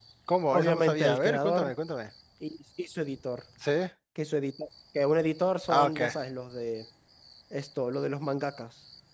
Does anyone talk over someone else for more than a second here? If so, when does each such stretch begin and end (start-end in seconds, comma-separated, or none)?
0.5-1.7